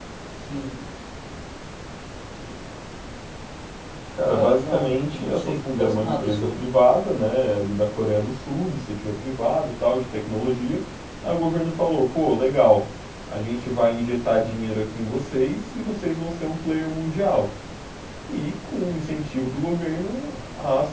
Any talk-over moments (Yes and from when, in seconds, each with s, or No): Yes, from 4.3 s